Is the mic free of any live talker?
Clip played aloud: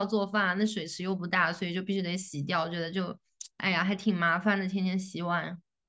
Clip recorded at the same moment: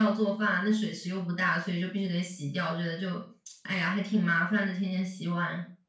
Yes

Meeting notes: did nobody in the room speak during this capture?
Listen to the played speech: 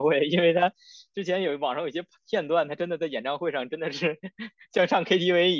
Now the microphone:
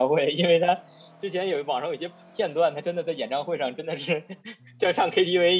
Yes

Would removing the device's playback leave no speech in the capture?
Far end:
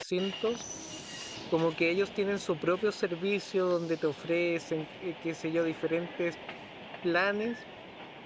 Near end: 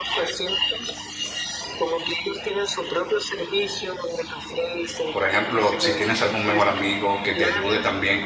No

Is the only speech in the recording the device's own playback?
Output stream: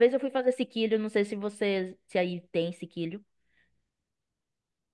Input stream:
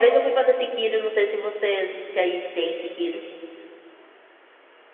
Yes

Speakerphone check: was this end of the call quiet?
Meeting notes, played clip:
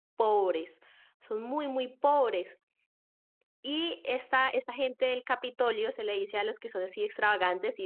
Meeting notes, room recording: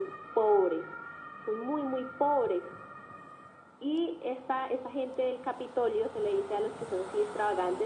Yes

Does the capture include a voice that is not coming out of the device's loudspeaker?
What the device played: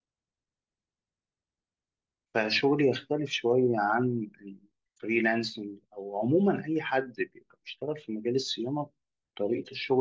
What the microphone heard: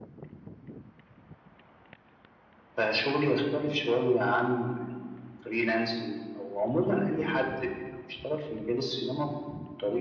No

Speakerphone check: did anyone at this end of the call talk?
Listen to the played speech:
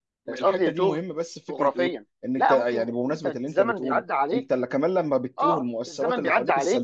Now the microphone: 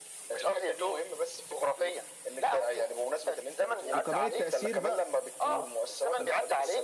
Yes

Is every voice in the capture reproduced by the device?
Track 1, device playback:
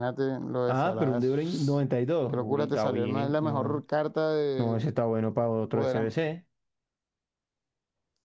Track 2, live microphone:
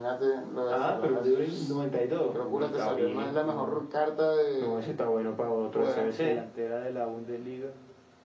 No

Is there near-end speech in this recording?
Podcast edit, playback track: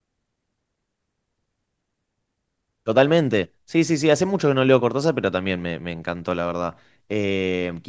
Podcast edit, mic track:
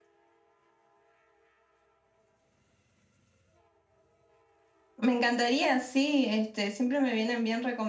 Yes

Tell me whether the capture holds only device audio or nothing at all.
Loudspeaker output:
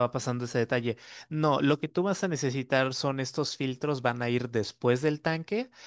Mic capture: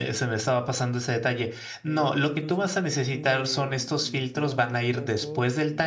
No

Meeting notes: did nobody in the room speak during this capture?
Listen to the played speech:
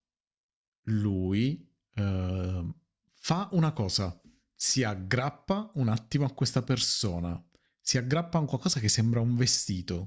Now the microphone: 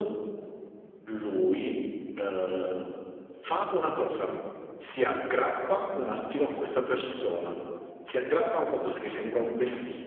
Yes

